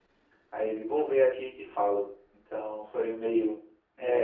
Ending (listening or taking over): taking over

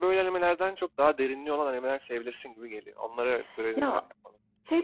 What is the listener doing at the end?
taking over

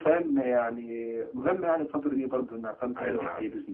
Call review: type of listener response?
taking over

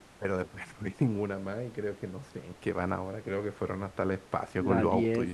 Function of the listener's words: taking over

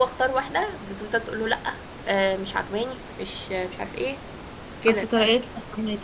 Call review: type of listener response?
taking over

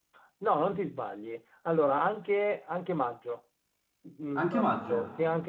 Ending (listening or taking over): listening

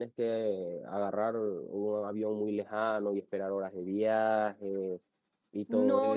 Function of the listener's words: taking over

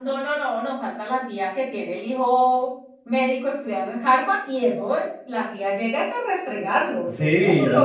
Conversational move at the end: taking over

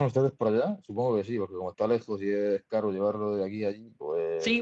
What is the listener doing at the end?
taking over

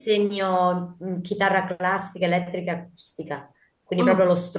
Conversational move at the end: listening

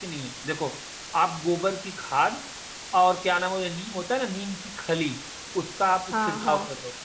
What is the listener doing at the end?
listening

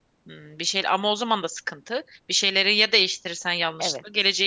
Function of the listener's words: taking over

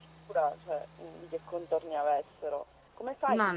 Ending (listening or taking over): listening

